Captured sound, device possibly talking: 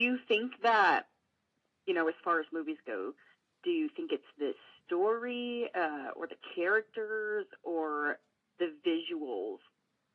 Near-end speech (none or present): none